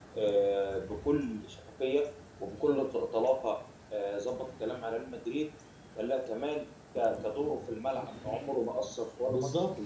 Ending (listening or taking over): taking over